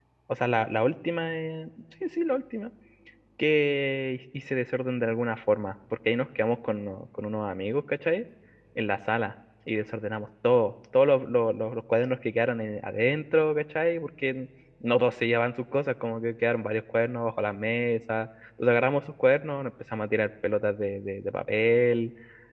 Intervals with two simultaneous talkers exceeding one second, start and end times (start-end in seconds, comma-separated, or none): none